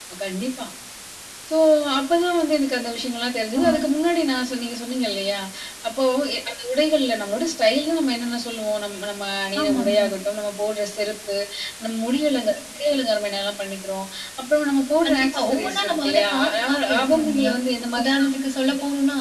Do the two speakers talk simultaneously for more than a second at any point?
Yes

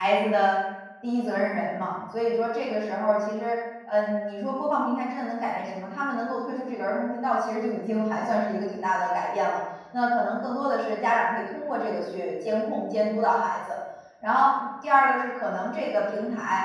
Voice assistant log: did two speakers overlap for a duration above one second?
No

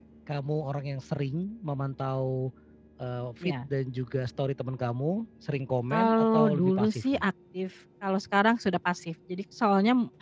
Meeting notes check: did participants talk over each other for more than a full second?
Yes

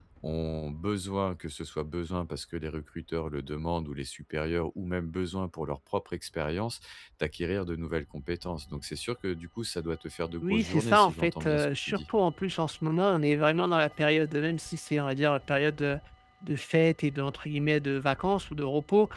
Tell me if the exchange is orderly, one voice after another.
No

